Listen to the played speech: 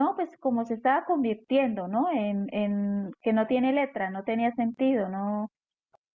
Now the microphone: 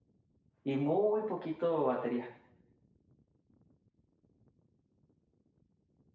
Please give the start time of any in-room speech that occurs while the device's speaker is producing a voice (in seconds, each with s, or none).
0.6 s